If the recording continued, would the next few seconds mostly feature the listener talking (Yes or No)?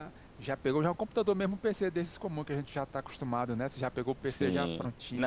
Yes